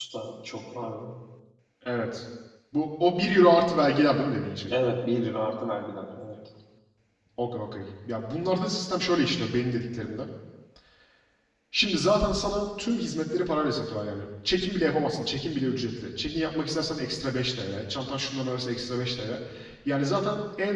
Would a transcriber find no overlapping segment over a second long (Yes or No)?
Yes